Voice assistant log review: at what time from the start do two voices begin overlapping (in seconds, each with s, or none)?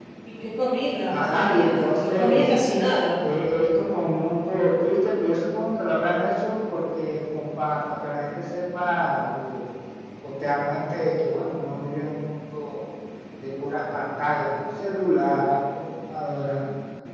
1.1 s